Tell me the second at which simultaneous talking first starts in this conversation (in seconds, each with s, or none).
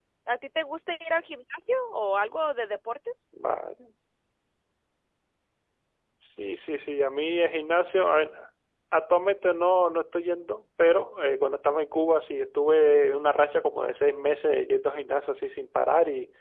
none